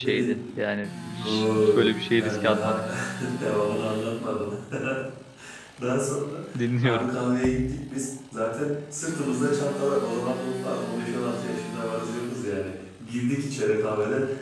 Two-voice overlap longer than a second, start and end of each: 1.2-2.8

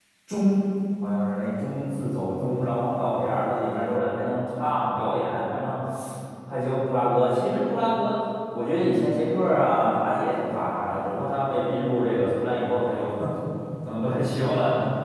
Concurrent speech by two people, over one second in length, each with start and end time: none

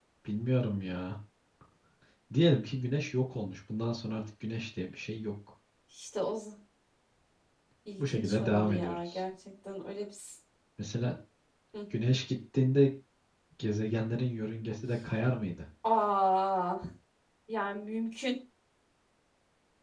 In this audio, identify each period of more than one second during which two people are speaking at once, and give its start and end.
8.0-9.2

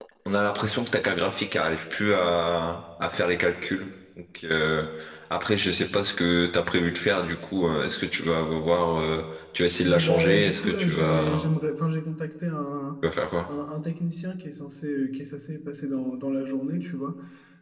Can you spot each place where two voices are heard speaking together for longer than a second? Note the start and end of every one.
9.8-11.5

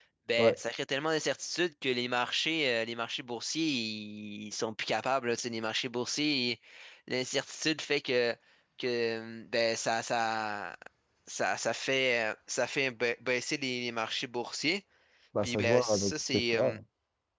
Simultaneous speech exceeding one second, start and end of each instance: 15.4-16.8

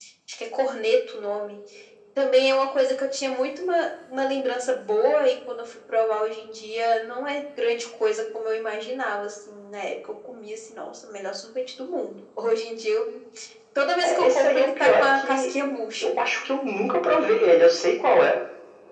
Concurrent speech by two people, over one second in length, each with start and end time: 14.0-15.5

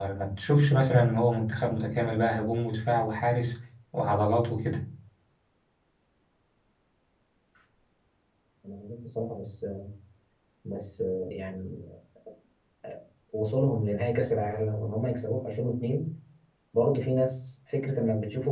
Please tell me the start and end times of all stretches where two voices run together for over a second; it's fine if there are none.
none

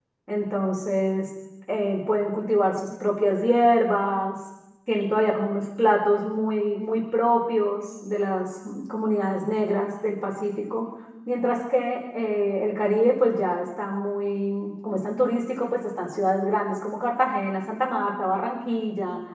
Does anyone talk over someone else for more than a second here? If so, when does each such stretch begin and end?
none

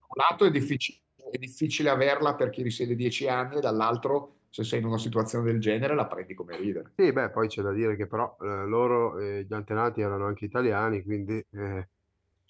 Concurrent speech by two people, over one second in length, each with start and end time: none

